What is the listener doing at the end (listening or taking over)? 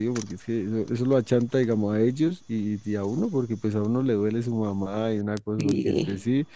listening